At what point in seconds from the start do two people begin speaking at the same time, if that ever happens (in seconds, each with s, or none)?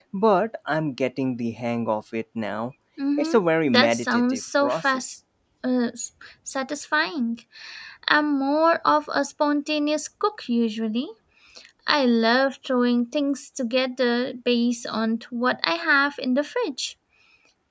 3.2 s